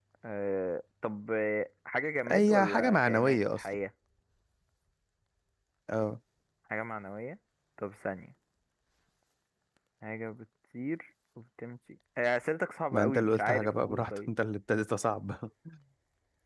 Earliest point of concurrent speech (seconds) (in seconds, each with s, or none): 2.3 s